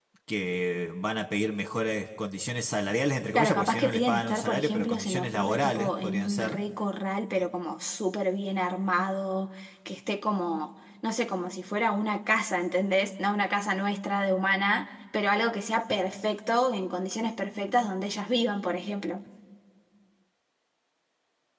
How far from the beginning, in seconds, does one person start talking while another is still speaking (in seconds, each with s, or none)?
3.4 s